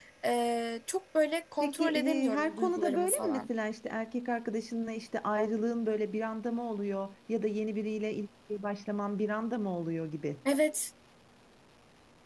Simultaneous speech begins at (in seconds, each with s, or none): 1.6 s